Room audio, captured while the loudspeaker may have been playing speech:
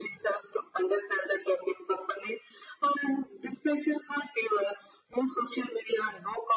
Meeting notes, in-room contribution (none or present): none